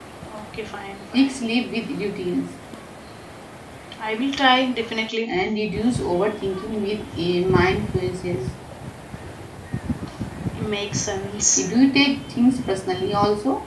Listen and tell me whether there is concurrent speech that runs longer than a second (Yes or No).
No